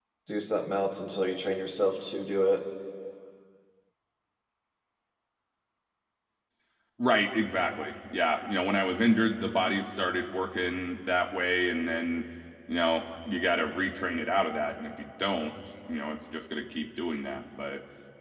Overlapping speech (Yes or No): No